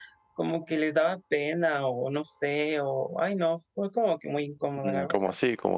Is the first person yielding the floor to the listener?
Yes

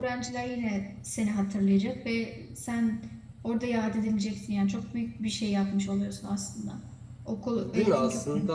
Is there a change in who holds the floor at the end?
Yes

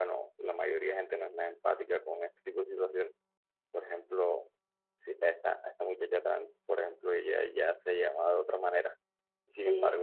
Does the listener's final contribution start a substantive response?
No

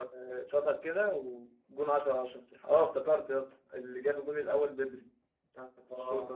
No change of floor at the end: Yes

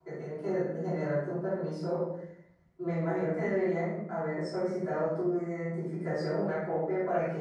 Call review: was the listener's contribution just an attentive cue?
Yes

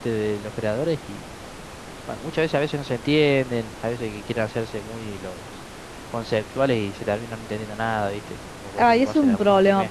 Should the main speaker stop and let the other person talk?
Yes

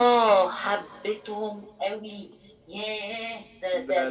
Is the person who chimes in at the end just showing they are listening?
No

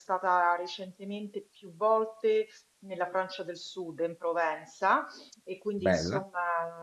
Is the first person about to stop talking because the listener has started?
No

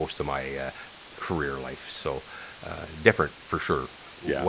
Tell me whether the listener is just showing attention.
Yes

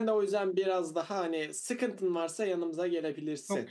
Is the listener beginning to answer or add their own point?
Yes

